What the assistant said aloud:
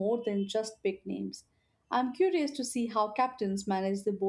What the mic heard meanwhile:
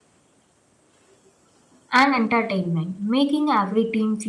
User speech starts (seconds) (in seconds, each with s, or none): 1.9 s